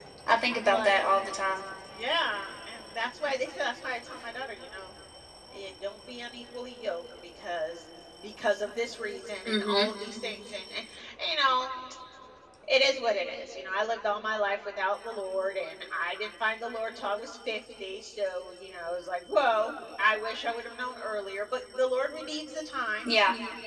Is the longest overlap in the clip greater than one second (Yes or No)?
No